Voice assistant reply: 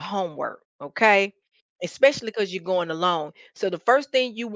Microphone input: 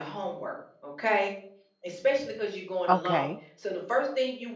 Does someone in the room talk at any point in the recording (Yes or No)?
Yes